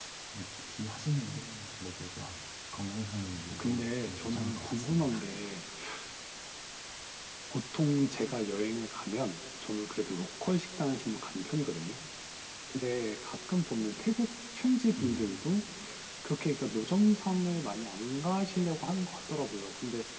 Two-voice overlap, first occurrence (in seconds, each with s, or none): 3.5 s